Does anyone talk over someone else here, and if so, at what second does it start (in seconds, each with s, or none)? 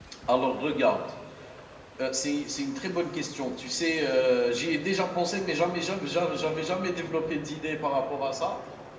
none